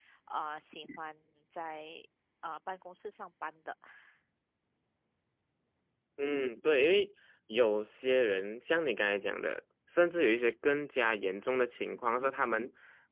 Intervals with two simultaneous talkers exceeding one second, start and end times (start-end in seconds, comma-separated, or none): none